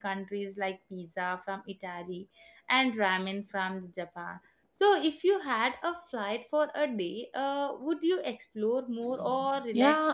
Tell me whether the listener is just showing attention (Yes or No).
No